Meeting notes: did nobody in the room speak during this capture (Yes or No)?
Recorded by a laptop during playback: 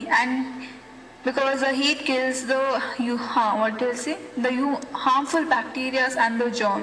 Yes